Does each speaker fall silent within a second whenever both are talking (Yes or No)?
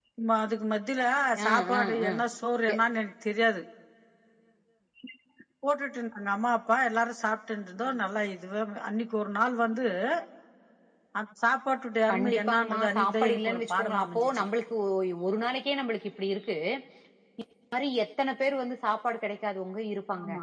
No